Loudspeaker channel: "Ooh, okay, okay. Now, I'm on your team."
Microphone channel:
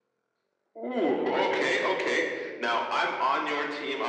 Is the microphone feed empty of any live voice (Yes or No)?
No